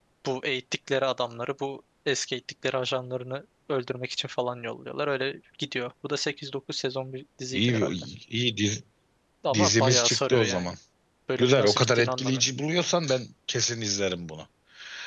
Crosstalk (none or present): present